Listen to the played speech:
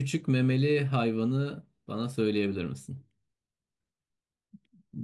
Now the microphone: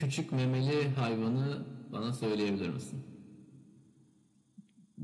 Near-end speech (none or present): none